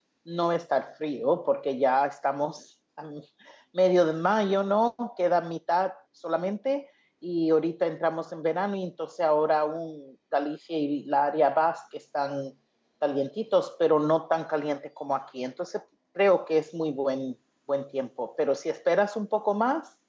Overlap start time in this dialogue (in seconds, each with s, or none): none